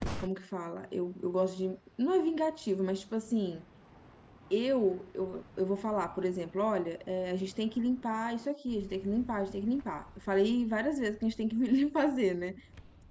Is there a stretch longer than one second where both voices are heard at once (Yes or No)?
No